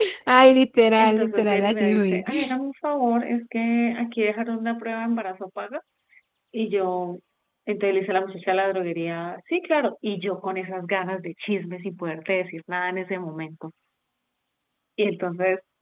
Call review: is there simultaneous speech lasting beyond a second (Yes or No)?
Yes